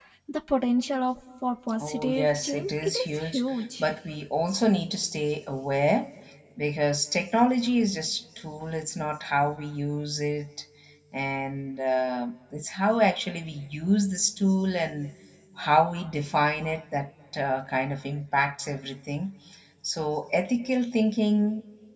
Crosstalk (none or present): present